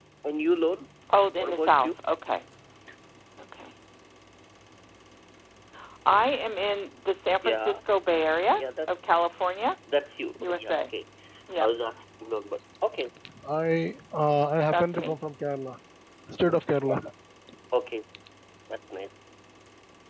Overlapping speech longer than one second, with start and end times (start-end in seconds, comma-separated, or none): none